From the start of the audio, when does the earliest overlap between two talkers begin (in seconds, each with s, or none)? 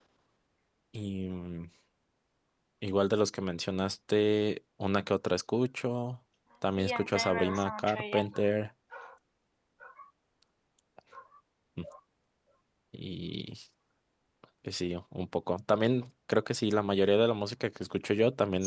6.8 s